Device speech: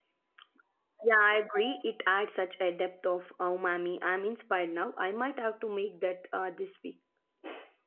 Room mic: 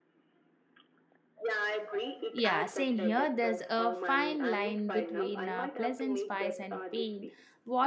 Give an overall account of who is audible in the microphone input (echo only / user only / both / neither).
both